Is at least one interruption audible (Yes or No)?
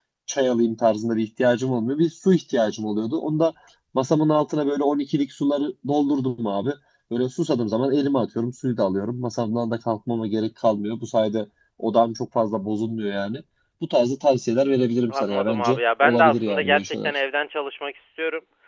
Yes